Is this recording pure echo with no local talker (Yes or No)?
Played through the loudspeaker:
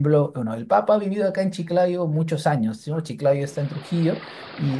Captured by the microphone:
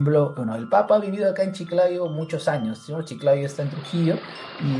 Yes